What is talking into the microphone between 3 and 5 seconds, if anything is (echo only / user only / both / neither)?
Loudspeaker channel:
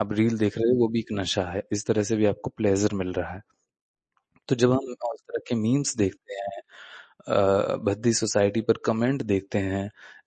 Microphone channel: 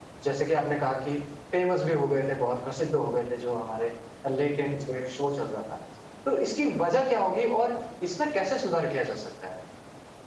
user only